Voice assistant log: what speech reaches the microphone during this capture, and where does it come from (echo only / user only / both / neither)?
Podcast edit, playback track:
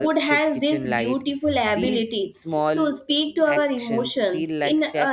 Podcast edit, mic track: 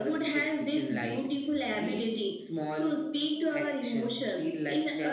echo only